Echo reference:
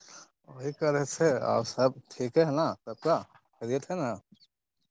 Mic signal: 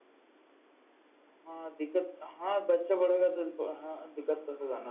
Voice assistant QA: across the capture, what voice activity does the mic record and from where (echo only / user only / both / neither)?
user only